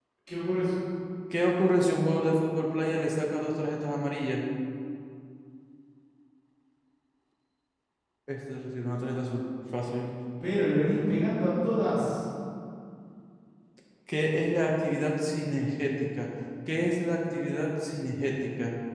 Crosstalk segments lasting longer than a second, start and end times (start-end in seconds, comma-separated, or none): none